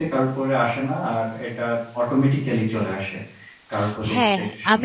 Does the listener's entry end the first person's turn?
Yes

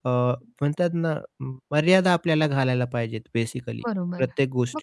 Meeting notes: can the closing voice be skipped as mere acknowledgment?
No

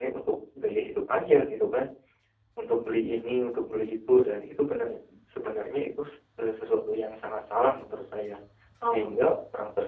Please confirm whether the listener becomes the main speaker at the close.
No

